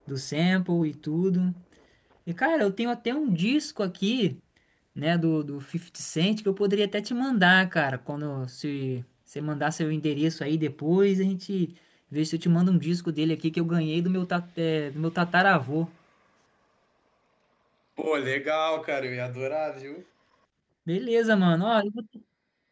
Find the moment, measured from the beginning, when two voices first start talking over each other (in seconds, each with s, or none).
none